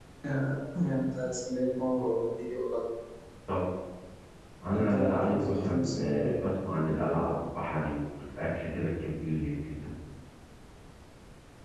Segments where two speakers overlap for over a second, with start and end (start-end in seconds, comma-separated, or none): 4.7-6.2